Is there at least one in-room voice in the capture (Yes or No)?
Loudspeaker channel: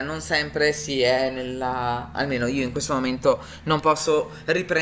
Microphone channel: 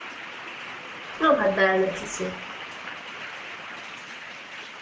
Yes